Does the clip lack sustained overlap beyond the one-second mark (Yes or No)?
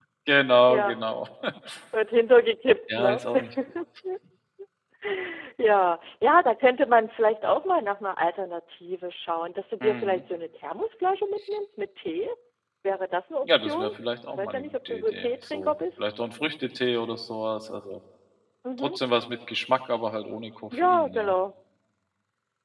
No